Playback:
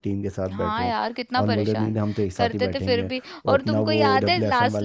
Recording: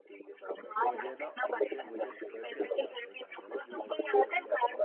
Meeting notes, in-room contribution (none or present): present